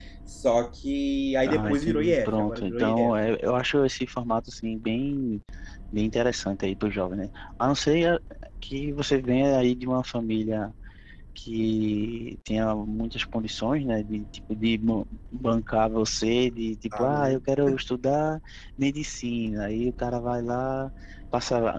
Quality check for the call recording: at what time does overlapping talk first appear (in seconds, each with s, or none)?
1.5 s